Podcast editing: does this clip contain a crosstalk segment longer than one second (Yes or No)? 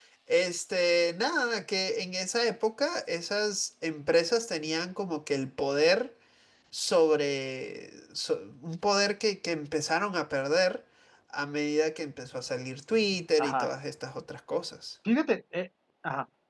No